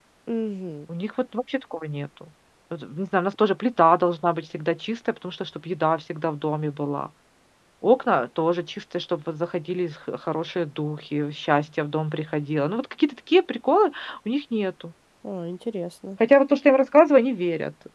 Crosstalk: none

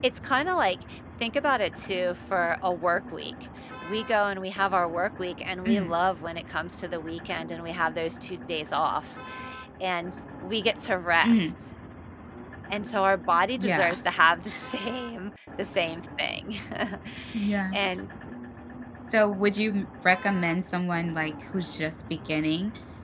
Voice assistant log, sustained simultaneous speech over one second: none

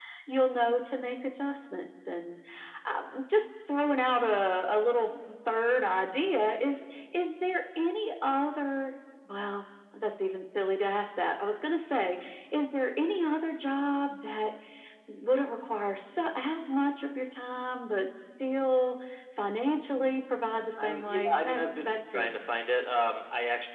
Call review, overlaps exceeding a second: present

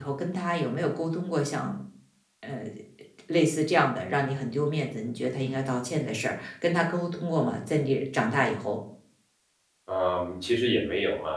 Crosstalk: none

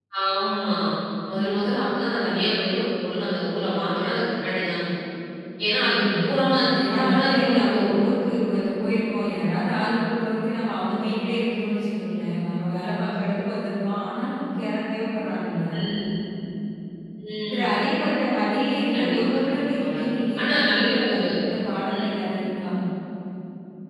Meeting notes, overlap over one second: present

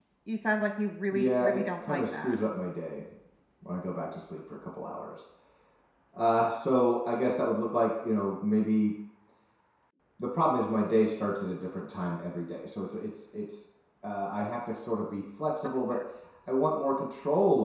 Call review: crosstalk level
present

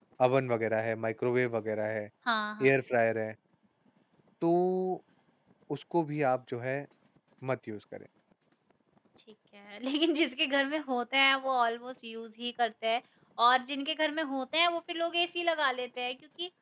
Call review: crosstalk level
none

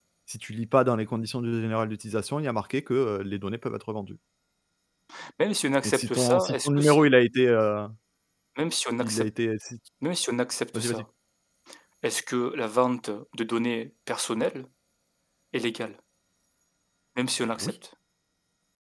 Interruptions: present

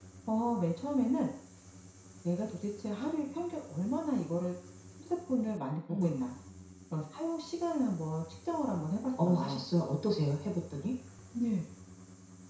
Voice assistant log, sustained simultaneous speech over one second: none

